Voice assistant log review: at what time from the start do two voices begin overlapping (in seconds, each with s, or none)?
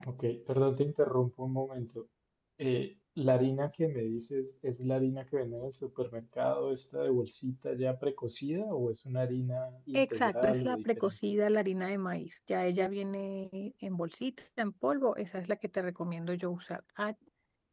9.9 s